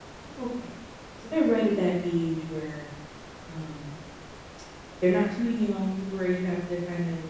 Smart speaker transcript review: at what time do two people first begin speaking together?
none

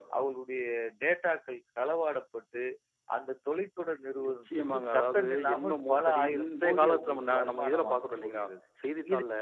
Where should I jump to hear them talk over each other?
4 s

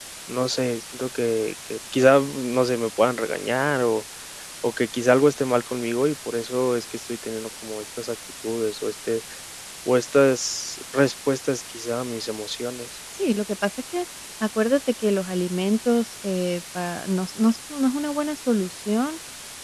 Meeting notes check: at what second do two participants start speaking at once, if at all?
none

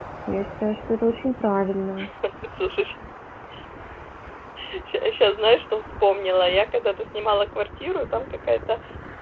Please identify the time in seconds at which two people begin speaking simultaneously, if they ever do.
none

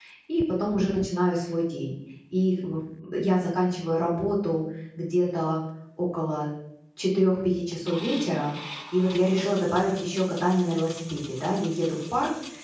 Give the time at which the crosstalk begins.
none

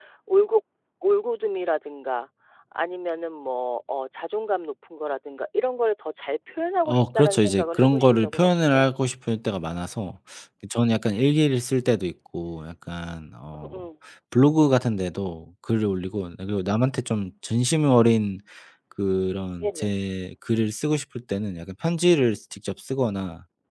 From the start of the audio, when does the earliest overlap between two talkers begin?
7 s

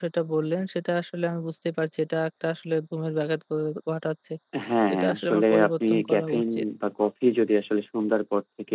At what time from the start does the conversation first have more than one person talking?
5 s

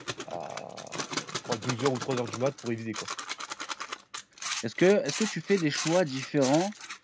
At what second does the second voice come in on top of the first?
none

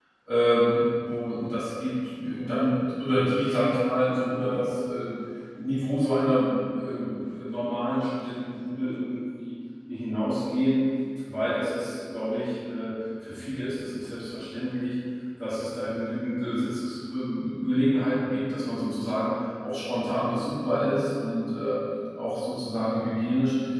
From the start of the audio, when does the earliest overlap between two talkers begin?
none

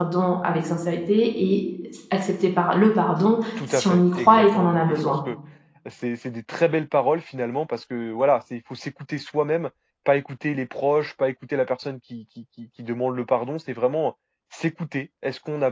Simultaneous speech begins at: 4 s

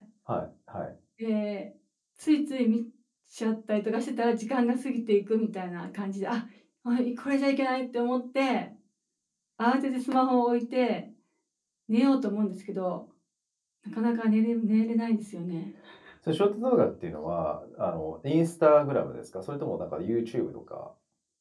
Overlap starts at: none

